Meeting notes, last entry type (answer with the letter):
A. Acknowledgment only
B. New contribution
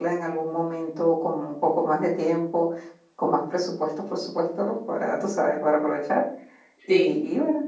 A